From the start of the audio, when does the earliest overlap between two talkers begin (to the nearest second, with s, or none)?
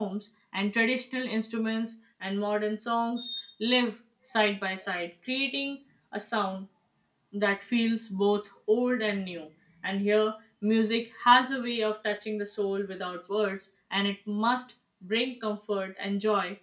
none